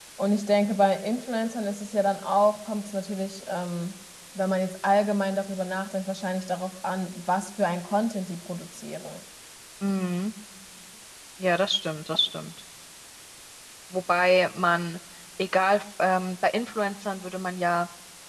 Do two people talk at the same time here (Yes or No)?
No